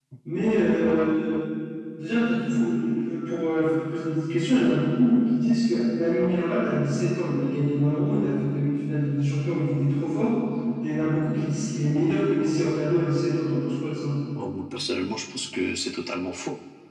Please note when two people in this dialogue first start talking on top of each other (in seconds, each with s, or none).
none